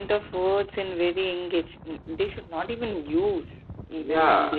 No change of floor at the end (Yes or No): No